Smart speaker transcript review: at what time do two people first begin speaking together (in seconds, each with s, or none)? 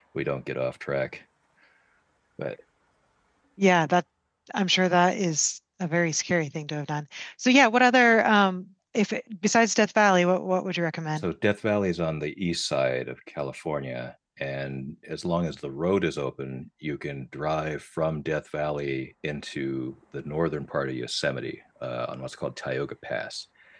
none